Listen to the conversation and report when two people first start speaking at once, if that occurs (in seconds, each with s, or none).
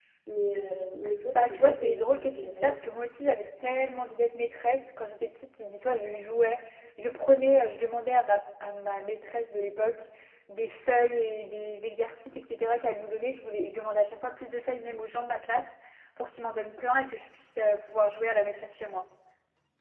1.4 s